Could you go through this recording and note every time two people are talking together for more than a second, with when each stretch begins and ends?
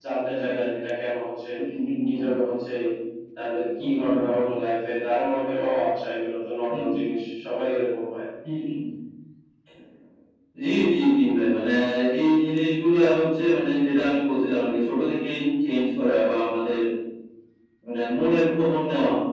none

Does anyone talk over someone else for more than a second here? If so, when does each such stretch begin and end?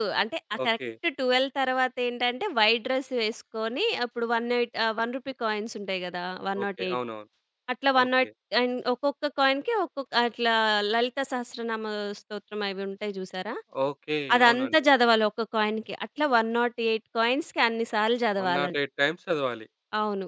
none

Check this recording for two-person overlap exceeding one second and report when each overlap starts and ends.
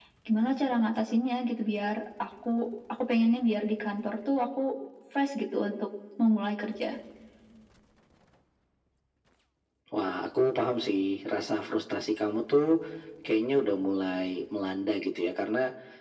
none

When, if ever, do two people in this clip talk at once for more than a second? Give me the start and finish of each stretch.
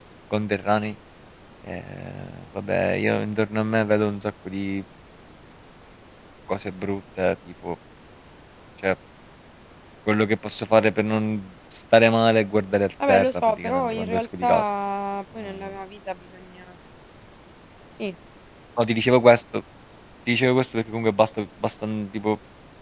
13.1-14.7

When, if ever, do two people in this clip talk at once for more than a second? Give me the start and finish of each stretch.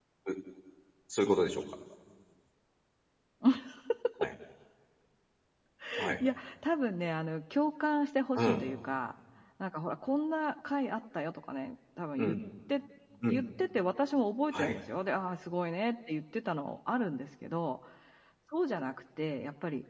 none

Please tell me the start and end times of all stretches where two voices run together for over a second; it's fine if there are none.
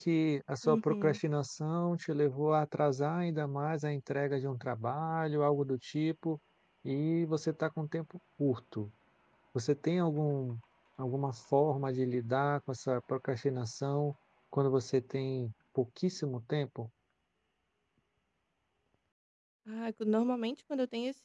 none

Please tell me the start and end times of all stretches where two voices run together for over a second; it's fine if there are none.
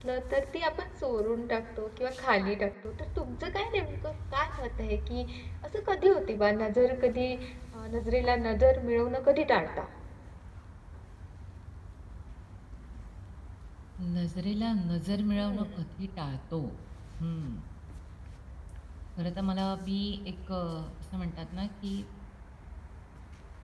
none

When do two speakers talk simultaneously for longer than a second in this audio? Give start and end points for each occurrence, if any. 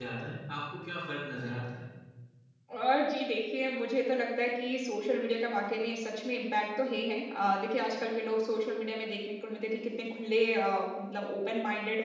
none

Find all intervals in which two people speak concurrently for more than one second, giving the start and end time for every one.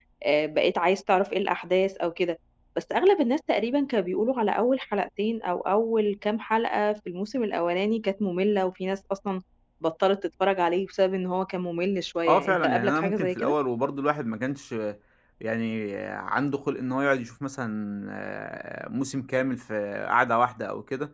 12.3-13.6

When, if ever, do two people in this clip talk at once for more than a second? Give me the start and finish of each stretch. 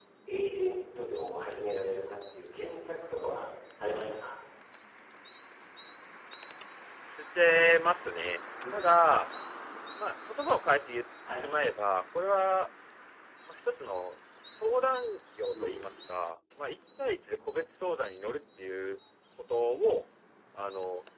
none

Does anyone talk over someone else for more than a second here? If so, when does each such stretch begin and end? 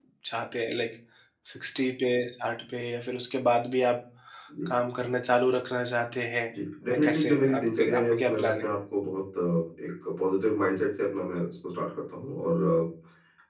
6.9-8.7

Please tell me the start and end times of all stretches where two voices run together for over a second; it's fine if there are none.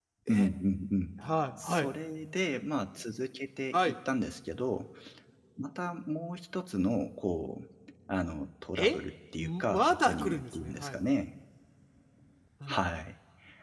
9.4-11.0

